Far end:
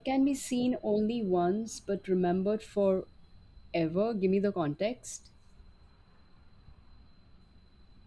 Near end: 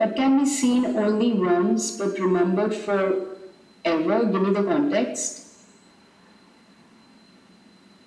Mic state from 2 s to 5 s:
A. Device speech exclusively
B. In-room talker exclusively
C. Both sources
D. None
A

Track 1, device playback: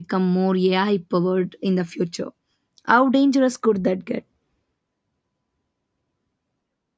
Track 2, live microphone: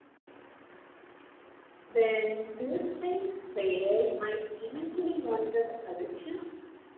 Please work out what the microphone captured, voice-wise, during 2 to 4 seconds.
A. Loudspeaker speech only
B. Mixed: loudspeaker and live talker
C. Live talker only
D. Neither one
C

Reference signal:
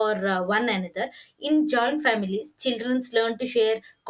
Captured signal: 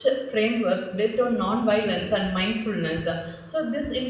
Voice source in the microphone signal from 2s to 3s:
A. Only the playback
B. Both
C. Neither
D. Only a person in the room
D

